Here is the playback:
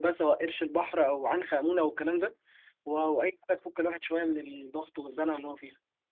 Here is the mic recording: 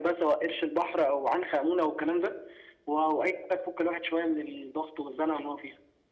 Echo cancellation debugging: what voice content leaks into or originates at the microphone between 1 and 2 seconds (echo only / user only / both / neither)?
echo only